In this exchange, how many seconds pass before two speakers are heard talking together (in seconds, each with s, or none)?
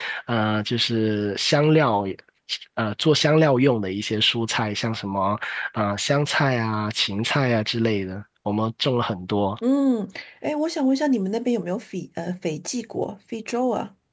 none